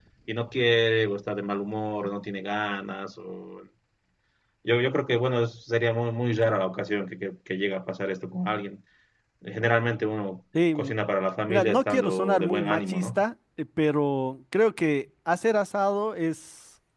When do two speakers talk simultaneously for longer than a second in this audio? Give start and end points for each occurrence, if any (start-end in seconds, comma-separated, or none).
11.5-13.2